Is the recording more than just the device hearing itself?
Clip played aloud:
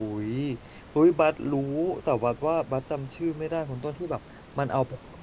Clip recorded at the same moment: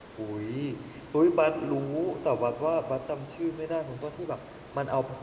No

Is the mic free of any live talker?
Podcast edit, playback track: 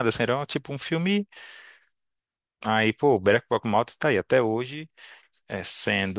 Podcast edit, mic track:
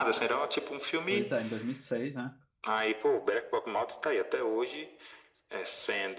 No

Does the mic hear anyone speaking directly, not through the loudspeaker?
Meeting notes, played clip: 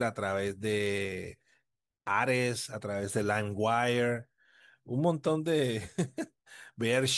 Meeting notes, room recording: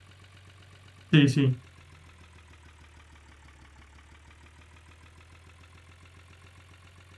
Yes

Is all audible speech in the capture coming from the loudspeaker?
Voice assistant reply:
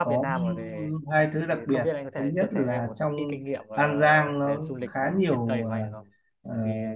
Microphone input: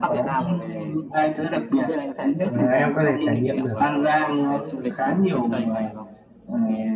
No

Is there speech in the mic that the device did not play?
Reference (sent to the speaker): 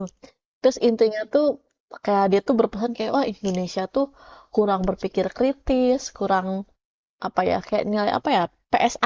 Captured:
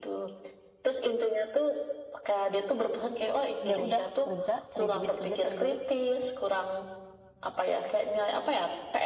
Yes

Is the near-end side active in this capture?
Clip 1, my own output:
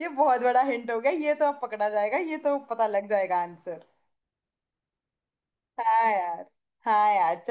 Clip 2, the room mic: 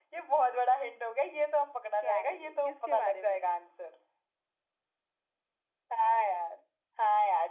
Yes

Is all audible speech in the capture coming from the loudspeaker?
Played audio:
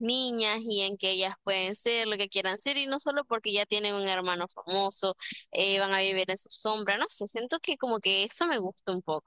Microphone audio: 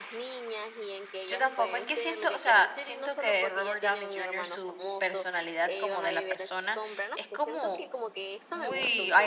No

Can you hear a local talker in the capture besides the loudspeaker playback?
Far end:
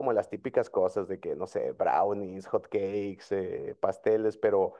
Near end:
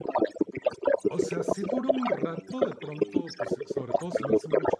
Yes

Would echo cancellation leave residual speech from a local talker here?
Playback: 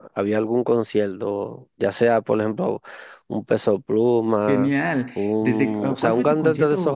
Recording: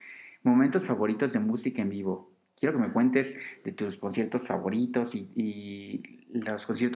Yes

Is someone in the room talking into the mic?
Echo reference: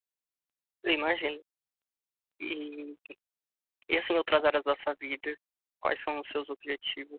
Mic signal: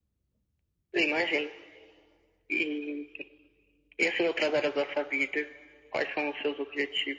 No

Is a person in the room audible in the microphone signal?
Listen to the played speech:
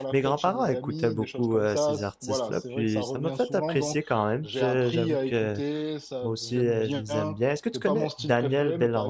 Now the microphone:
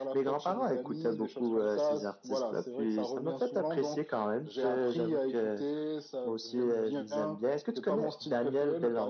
No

